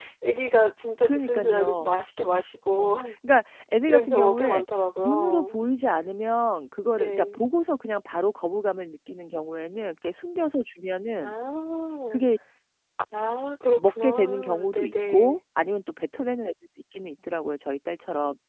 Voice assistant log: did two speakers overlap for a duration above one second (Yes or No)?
Yes